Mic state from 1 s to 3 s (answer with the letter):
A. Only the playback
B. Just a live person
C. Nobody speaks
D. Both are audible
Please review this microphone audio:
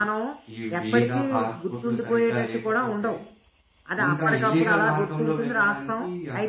D